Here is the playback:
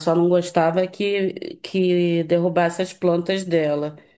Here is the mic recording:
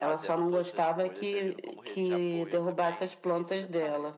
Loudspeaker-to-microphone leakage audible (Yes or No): Yes